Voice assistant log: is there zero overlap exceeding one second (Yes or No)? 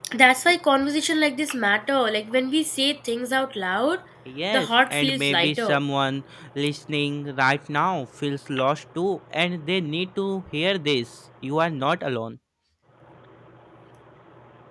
No